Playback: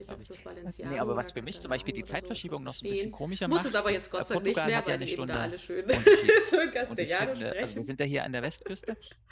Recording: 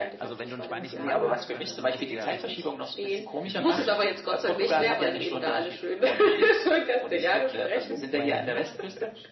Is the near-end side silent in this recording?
No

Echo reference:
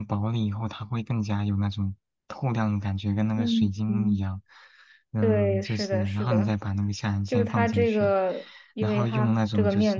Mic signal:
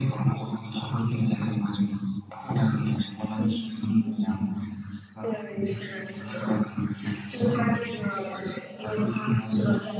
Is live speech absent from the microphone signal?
Yes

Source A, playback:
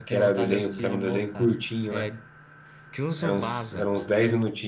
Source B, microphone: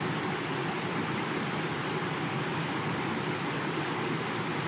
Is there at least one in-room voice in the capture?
No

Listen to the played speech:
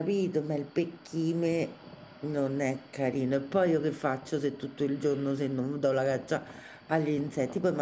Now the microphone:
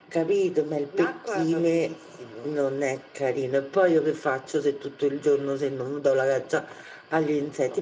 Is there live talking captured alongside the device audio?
Yes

